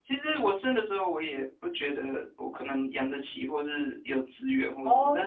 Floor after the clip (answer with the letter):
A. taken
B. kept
B